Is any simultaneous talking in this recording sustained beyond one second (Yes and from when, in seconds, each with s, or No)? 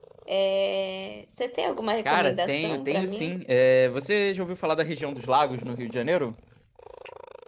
Yes, from 2.0 s